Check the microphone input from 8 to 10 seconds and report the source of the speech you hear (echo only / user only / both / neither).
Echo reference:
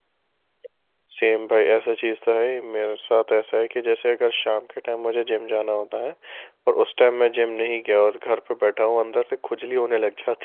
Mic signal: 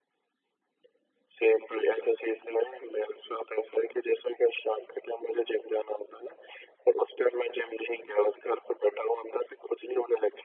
echo only